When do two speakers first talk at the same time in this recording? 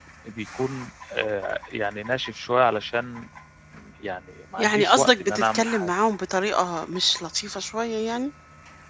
4.6 s

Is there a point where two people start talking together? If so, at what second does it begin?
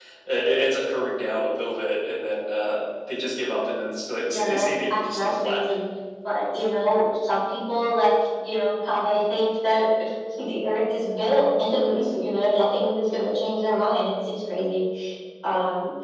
4.3 s

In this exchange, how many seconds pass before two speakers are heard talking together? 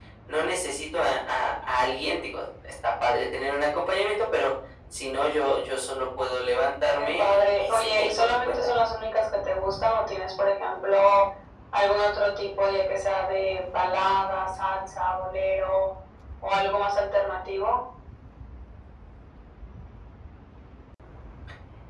7.0 s

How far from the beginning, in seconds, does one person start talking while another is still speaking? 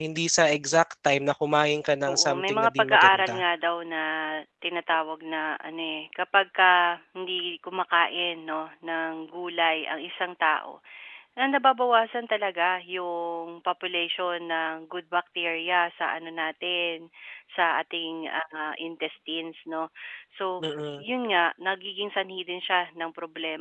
2.1 s

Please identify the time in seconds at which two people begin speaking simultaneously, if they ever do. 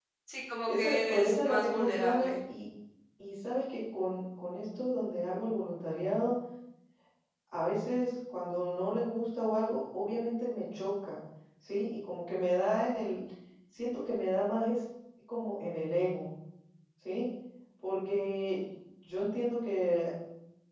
0.7 s

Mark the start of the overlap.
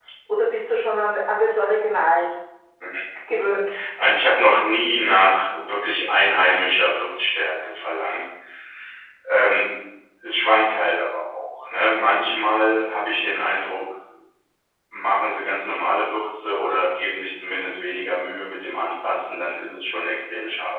none

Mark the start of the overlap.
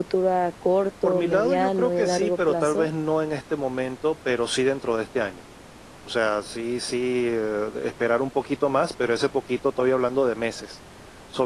1.0 s

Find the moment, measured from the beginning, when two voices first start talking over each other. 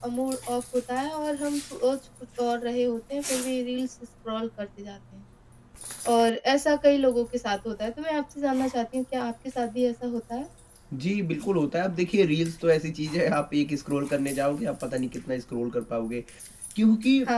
none

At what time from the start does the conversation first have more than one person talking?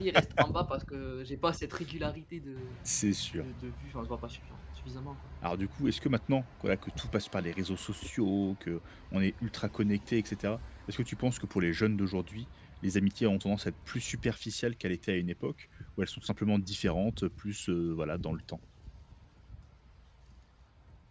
none

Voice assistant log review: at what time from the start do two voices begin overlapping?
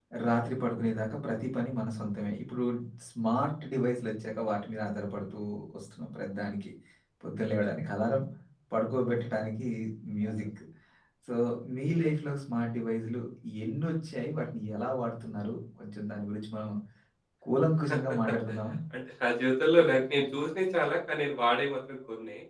none

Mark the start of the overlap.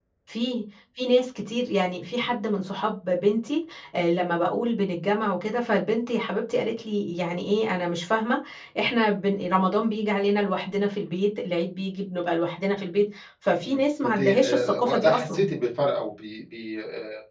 13.6 s

